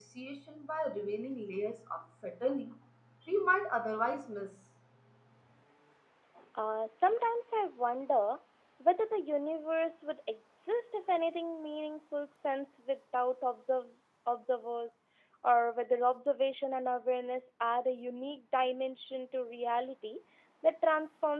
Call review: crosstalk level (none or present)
none